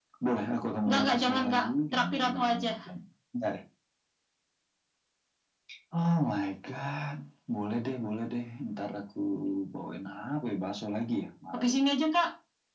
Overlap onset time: 0.9 s

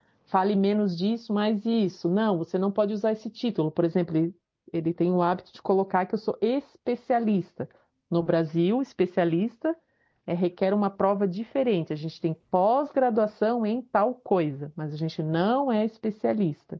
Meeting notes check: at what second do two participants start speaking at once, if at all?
none

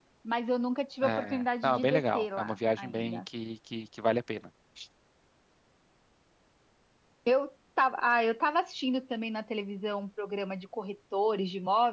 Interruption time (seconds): 1.0 s

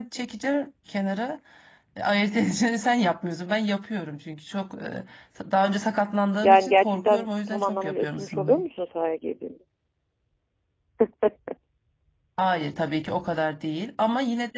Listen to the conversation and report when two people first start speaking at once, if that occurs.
6.4 s

